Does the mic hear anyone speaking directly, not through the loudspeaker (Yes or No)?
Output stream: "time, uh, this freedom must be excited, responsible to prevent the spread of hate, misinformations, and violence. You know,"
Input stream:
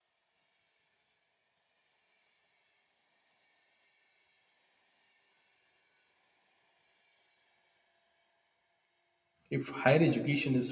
Yes